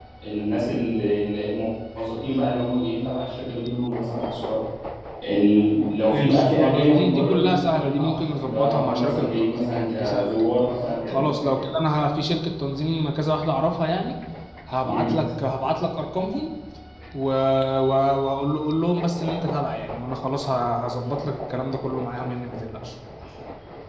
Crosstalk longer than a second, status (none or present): present